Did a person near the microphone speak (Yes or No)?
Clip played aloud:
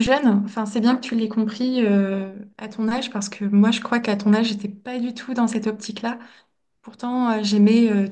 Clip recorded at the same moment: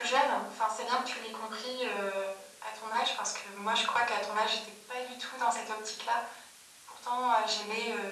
No